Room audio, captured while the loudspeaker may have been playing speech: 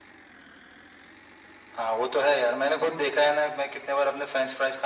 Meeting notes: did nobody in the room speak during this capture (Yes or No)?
Yes